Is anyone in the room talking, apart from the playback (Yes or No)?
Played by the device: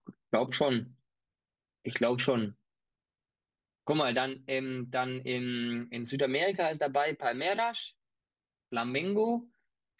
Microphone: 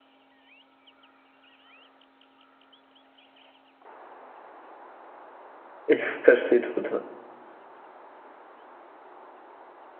Yes